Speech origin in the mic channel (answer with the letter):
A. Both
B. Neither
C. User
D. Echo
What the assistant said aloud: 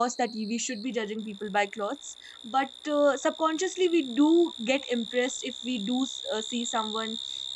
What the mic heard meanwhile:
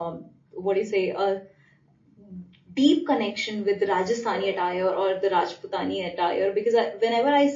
C